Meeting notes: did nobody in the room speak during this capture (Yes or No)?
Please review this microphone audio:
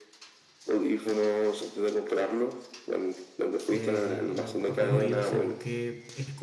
No